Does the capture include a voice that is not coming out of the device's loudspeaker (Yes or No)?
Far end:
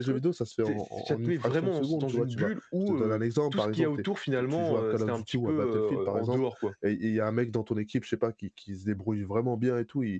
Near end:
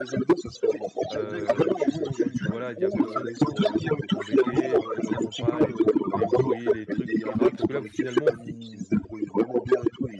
Yes